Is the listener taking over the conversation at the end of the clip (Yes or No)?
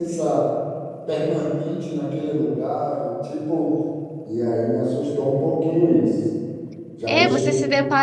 Yes